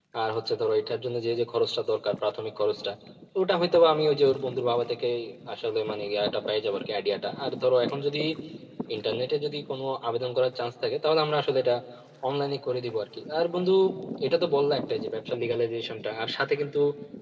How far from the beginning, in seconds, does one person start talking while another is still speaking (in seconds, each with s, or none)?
none